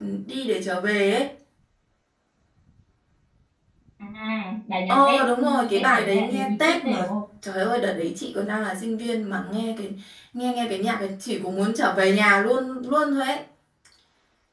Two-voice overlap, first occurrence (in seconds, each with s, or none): 4.9 s